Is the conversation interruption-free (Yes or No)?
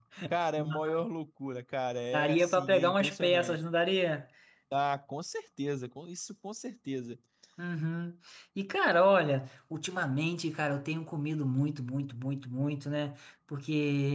No